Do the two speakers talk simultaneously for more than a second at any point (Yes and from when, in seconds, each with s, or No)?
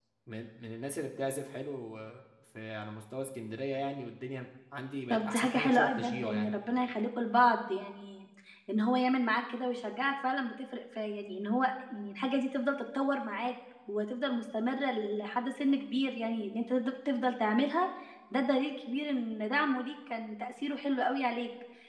Yes, from 5.1 s